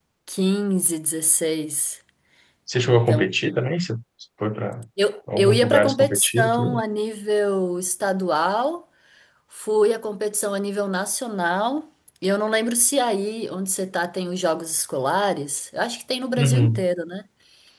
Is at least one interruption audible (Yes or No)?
Yes